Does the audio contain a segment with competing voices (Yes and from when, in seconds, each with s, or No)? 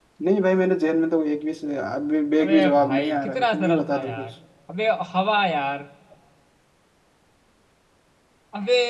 Yes, from 2.4 s